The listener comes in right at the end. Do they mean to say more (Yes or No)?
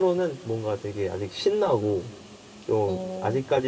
No